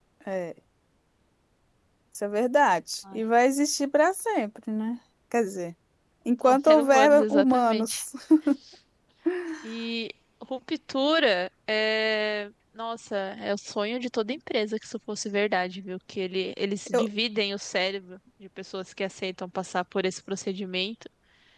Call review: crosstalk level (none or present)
present